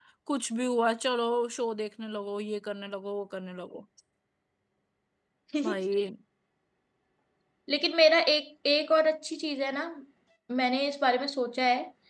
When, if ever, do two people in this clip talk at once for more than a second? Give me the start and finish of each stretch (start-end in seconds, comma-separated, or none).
none